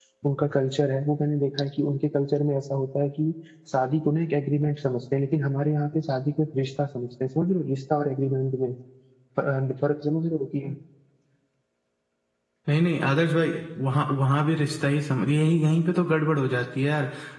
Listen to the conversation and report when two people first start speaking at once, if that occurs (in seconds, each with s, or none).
none